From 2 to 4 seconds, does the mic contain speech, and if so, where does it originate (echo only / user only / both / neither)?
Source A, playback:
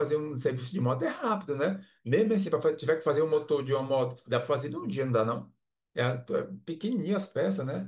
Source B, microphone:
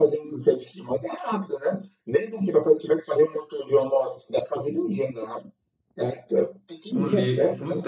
echo only